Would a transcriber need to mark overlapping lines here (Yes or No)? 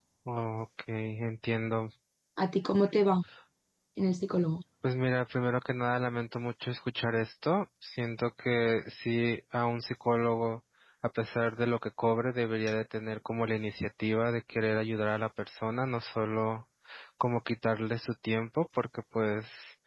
No